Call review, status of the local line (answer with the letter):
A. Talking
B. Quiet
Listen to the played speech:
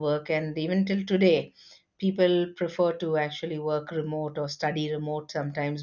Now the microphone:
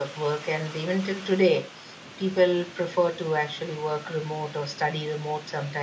B